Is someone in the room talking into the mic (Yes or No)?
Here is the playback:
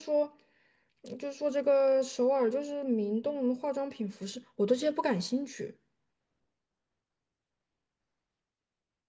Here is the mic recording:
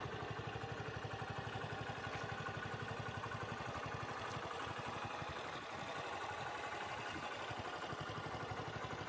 No